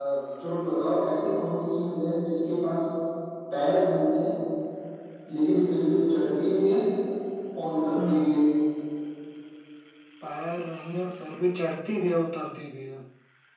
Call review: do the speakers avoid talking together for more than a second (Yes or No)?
Yes